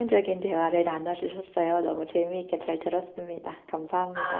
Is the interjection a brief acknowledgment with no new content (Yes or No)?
No